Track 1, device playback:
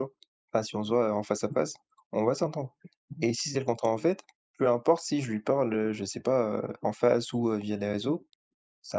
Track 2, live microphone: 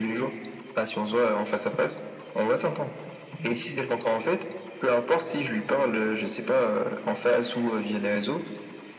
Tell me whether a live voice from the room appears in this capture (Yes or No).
No